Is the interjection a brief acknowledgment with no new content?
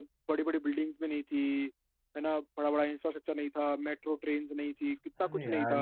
No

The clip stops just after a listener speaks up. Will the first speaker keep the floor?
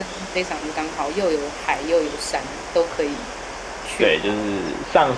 No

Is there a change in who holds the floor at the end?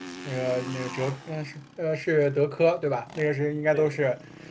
No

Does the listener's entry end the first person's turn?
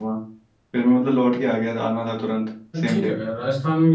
Yes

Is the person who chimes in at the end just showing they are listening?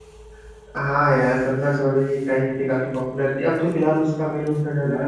No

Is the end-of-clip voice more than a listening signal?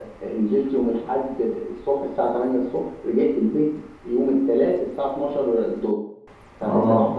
No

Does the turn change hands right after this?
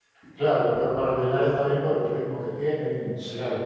No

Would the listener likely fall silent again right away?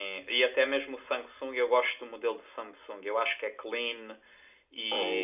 Yes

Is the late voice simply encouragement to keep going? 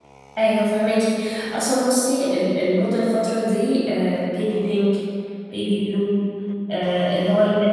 Yes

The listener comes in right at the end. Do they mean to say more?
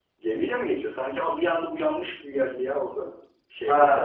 Yes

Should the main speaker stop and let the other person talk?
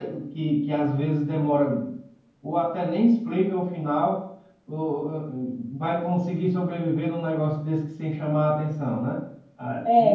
Yes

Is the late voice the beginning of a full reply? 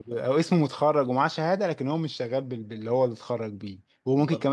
No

